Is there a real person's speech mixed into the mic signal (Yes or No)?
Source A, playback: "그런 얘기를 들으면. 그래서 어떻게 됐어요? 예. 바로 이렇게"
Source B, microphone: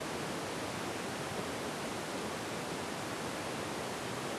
No